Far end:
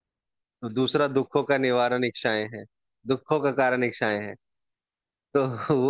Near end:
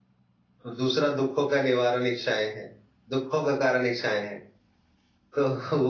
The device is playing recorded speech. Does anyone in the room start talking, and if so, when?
none

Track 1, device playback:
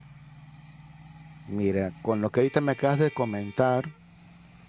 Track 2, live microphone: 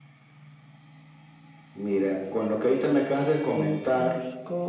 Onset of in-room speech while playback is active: 3.5 s

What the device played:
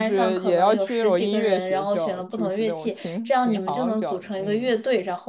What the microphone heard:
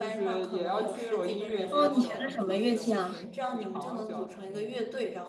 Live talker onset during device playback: 1.7 s

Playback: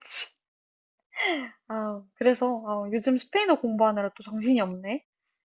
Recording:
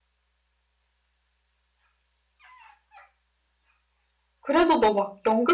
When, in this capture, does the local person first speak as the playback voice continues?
4.4 s

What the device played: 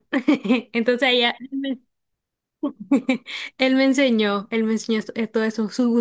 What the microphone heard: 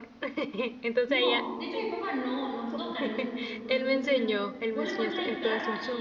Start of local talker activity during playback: 1.0 s

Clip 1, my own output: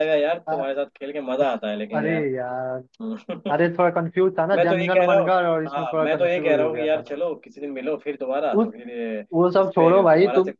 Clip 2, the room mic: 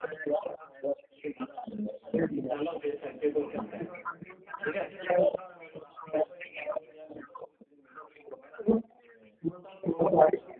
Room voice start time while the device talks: 2.5 s

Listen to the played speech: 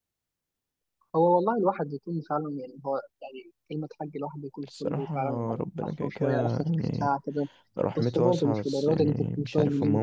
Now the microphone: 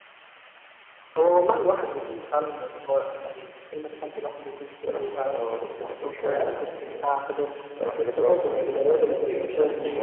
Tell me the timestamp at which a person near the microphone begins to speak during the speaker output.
8.4 s

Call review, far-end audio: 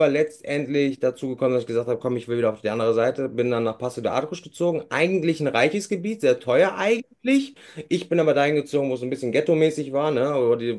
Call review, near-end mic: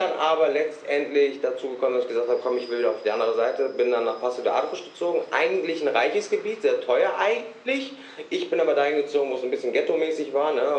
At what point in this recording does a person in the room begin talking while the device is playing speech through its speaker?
none

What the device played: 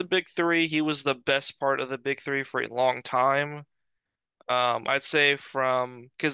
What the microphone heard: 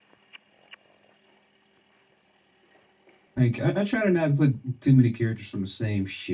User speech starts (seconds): 3.4 s

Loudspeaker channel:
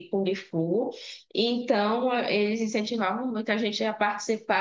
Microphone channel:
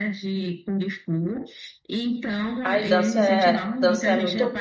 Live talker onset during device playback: 2.6 s

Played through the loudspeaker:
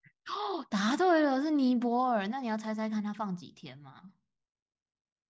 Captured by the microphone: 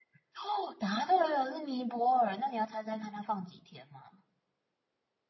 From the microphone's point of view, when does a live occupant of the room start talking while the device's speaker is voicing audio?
none

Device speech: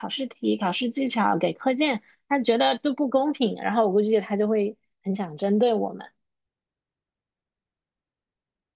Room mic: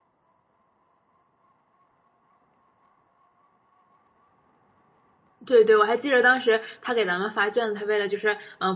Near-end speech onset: 5.4 s

